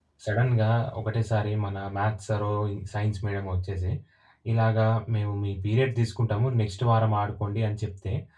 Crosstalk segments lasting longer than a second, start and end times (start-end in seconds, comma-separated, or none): none